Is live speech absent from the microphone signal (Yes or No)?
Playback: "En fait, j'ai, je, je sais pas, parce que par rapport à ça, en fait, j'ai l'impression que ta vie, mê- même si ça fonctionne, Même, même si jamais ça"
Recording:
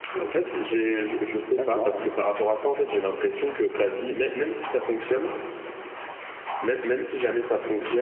No